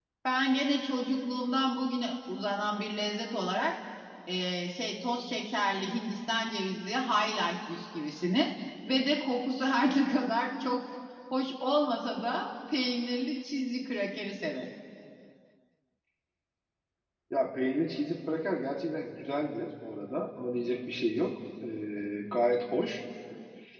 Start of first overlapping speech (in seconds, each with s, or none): none